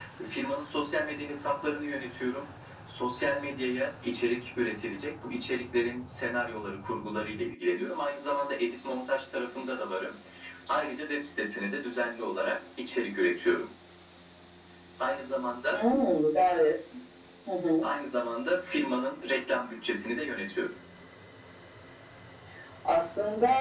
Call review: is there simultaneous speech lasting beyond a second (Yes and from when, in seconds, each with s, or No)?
No